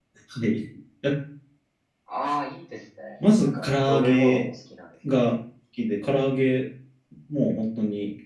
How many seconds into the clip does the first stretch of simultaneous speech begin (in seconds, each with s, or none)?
3.2 s